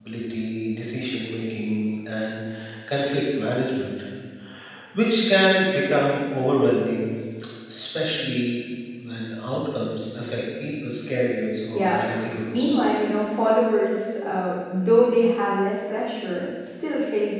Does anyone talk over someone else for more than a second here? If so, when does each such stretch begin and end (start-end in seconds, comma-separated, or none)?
none